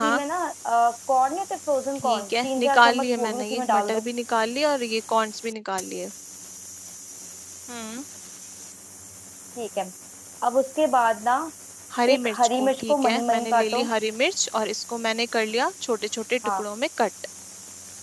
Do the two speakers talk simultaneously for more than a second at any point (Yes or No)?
Yes